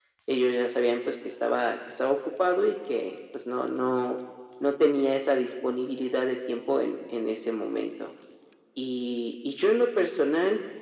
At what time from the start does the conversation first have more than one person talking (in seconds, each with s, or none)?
none